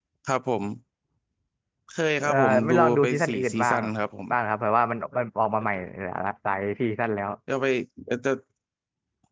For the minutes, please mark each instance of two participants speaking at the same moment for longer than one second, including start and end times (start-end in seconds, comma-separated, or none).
2.2-3.8